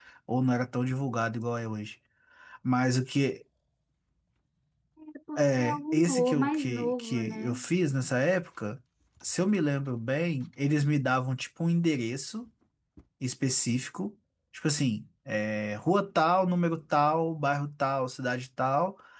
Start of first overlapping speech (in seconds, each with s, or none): 5.4 s